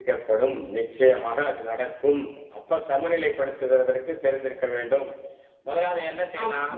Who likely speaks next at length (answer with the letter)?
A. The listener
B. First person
A